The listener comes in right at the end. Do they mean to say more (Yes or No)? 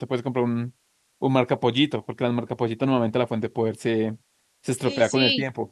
Yes